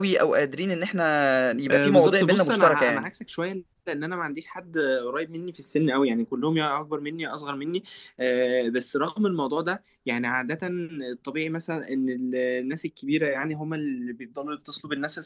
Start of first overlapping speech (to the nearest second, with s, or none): 2 s